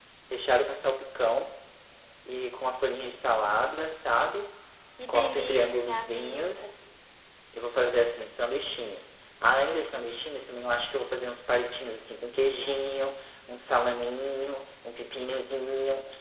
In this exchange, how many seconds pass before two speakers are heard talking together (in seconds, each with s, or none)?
5.1 s